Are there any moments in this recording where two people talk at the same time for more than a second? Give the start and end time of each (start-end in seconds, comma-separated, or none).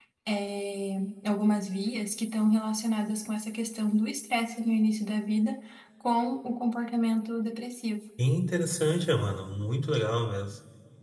none